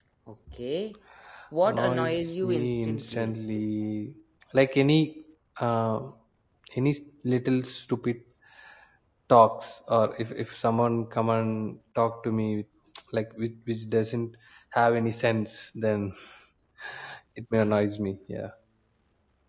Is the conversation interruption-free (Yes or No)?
No